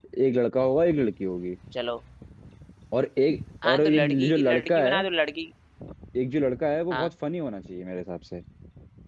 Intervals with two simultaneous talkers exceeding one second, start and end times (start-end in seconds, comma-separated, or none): 3.6-5.0